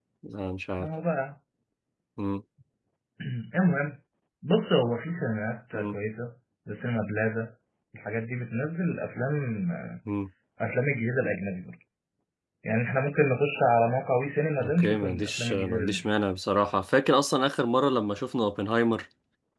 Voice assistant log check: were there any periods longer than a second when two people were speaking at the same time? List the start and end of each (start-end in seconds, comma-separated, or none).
14.6-16.0